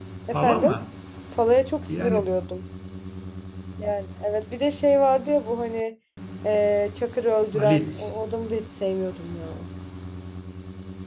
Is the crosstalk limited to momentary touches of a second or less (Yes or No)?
Yes